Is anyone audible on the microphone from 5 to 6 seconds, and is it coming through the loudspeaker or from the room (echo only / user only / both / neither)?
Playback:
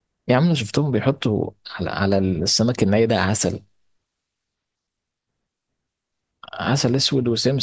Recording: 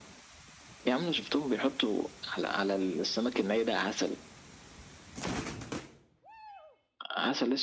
neither